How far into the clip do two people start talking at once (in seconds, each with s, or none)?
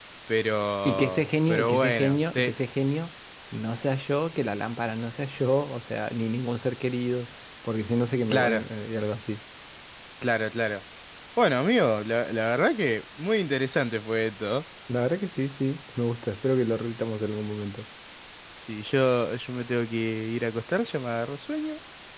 0.8 s